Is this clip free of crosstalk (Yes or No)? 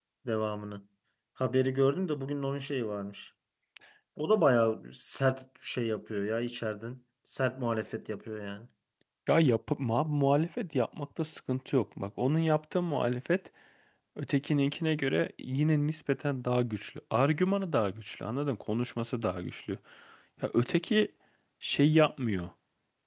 Yes